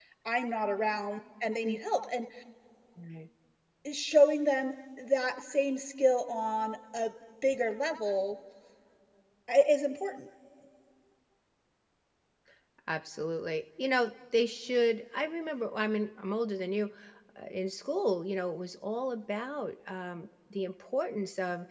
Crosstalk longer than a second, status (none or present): none